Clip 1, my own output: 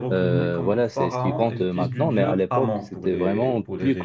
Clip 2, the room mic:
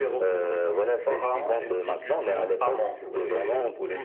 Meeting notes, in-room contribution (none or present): none